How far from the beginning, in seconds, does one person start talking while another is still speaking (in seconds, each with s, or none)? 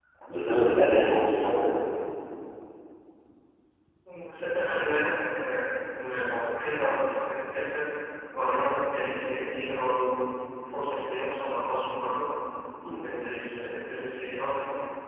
none